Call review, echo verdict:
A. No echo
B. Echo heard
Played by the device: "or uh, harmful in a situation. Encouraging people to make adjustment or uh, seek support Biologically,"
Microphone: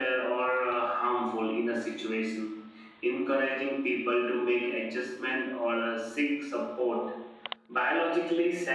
B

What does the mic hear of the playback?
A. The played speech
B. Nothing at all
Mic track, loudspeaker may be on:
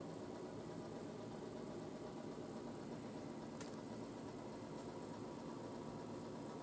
B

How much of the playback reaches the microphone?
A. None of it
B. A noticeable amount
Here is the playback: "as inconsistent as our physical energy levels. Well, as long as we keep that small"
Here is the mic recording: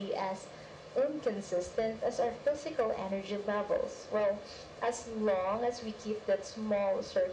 B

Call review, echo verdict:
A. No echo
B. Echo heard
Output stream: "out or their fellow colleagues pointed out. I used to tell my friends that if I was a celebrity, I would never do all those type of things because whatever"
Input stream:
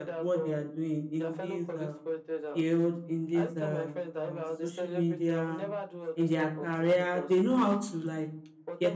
B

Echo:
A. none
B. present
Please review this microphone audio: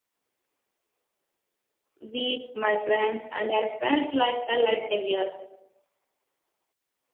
A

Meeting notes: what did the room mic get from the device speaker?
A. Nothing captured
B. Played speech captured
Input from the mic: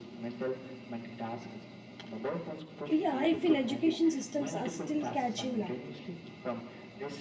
B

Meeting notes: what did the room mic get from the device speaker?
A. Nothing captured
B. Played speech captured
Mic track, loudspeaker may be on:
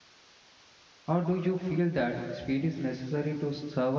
A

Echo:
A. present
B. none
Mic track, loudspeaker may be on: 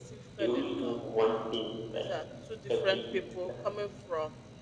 A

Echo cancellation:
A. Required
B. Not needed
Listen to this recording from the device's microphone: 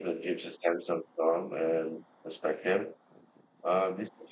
B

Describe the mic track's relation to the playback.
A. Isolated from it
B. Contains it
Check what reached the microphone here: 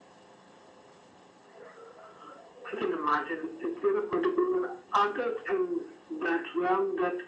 B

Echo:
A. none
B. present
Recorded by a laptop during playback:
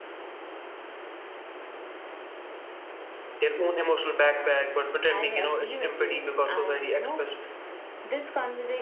B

